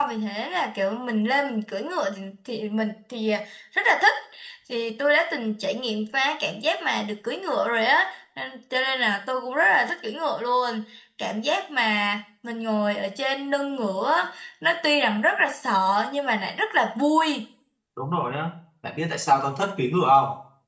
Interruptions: none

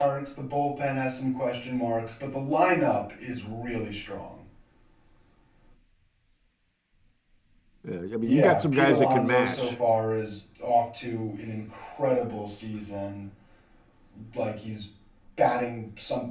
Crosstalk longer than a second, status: present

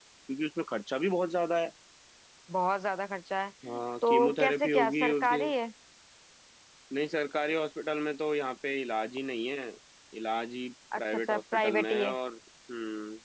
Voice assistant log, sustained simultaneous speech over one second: present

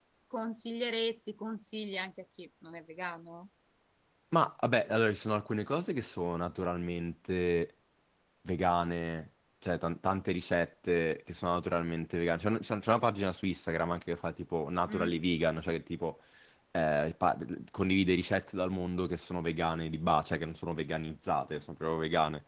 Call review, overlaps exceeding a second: none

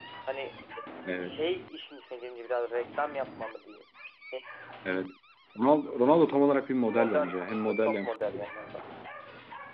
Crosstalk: present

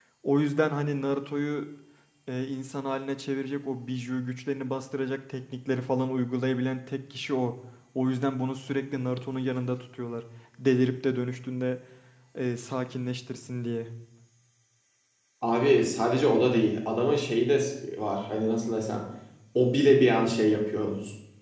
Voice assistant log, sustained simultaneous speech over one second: none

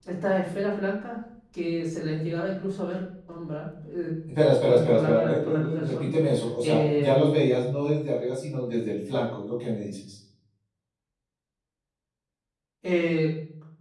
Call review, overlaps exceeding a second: present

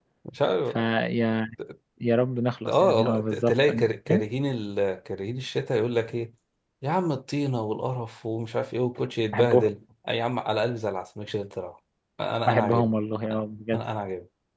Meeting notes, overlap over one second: present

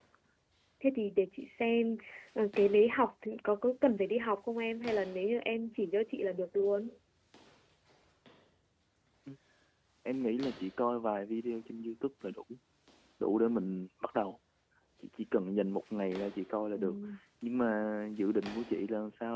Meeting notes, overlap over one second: none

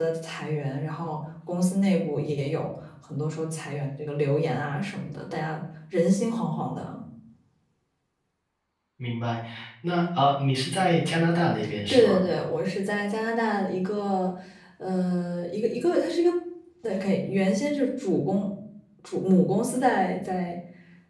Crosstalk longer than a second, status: none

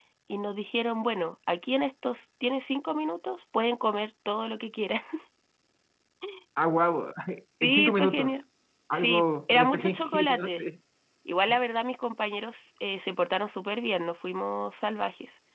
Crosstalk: present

